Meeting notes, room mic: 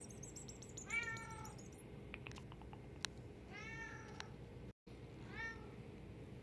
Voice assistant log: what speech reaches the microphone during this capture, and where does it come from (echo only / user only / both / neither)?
neither